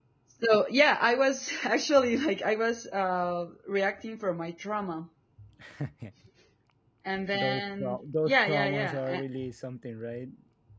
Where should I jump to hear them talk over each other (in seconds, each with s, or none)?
7.3 s